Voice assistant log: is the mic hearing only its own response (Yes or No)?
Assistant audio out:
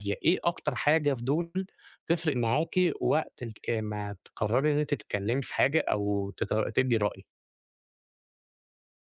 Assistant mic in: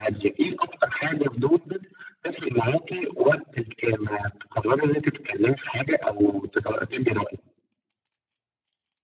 Yes